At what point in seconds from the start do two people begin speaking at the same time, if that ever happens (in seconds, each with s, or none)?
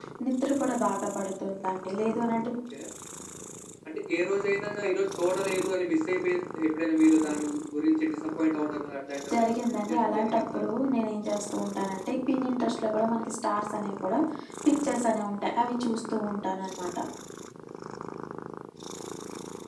9.3 s